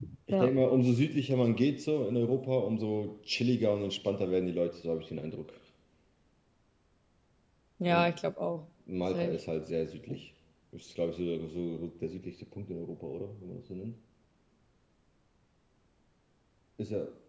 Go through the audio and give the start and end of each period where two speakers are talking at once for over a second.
none

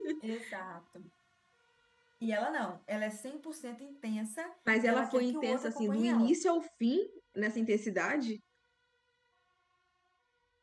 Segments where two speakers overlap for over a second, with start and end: 4.8-6.4

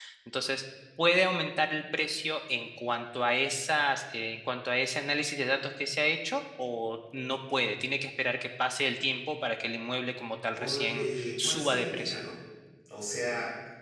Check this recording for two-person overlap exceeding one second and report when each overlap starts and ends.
10.6-12.2

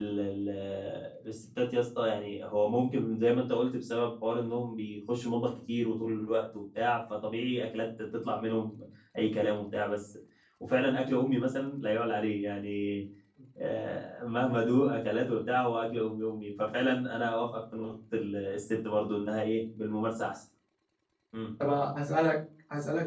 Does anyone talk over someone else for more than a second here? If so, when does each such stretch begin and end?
none

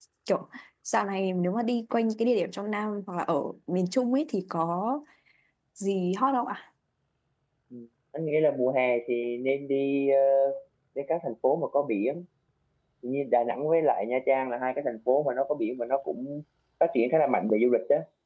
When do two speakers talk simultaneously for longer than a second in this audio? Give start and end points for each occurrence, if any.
none

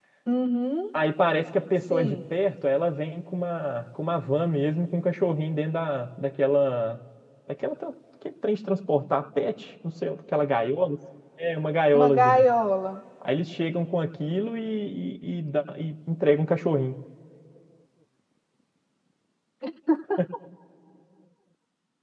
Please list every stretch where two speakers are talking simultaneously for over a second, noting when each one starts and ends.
none

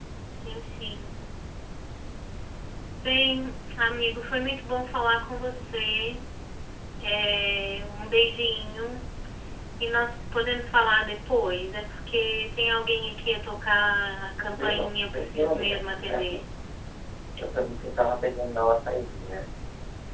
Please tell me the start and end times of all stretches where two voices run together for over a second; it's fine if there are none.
14.4-16.4

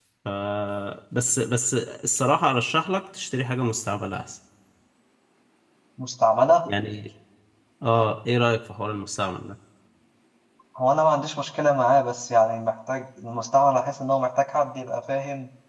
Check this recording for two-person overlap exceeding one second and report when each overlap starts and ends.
none

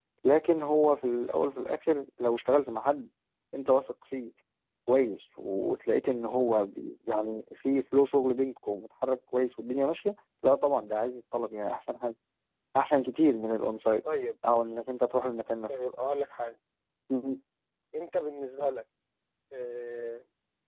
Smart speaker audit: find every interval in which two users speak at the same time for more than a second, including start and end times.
none

